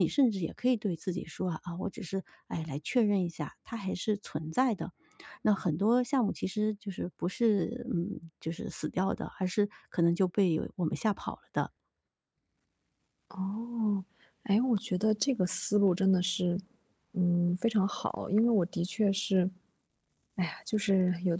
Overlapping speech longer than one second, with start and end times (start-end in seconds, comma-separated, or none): none